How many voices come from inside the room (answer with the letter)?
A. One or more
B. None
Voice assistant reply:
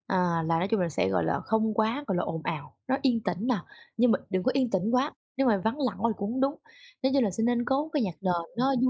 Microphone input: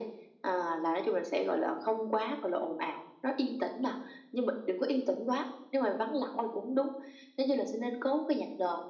B